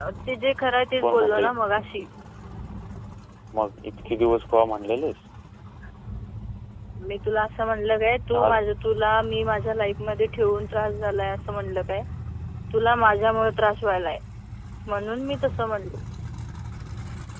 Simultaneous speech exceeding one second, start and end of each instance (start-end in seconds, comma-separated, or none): none